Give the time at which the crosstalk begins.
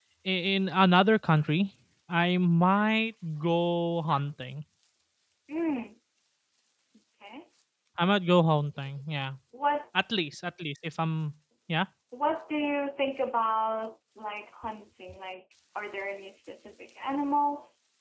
none

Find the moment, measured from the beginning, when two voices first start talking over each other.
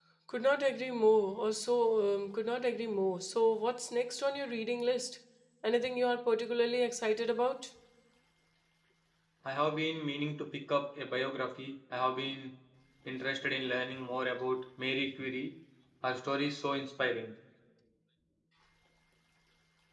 none

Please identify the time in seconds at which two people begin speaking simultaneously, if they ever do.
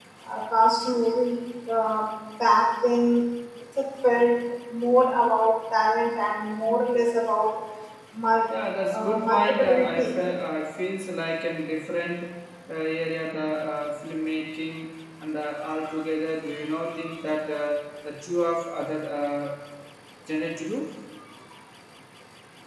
8.9 s

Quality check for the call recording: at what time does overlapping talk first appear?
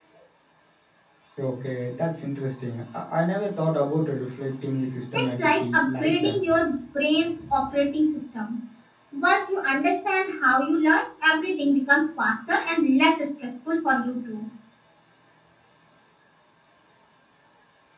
5.1 s

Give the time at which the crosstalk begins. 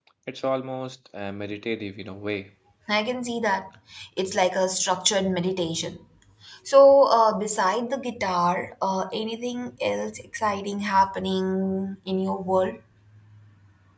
none

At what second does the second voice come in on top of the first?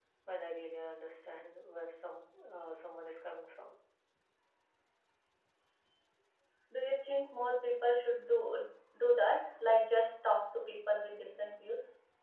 none

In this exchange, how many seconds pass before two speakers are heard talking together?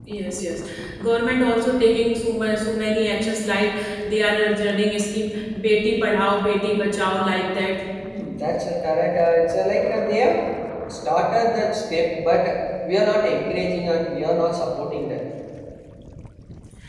none

